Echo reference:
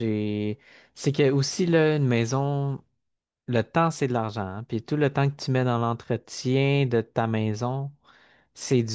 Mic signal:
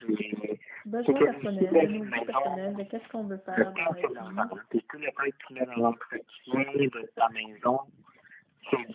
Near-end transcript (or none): besoins personnels, de nos goûts personnels, de qu'est-ce qu'on veut faire dans la vie.